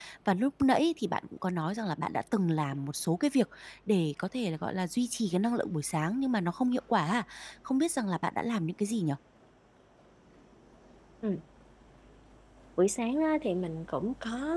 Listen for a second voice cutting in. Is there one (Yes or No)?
No